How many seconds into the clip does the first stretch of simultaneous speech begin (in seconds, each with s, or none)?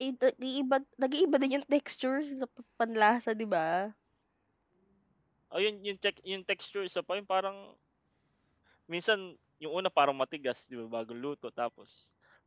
none